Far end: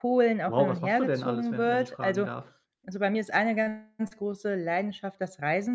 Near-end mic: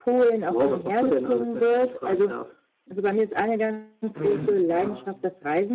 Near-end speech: present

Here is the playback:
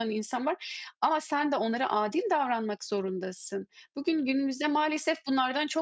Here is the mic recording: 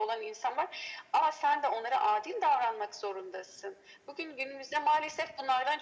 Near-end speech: none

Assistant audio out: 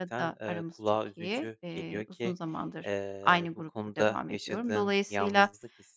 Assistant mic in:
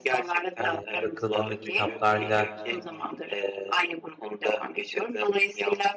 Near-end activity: present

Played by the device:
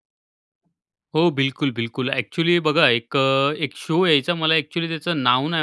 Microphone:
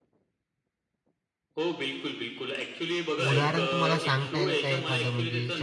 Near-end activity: present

